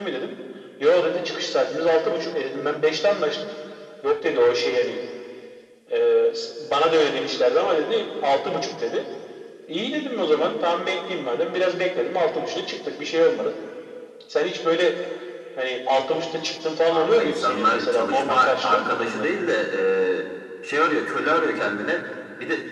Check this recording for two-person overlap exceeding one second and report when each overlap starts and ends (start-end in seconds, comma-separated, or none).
16.9-19.2